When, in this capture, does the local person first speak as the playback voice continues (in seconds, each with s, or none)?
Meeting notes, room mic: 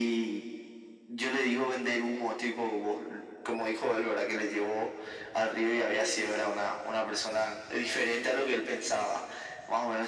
none